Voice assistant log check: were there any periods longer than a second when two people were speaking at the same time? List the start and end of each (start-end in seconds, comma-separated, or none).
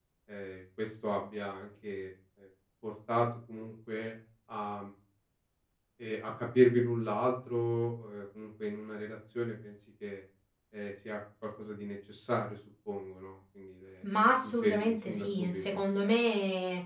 14.1-15.6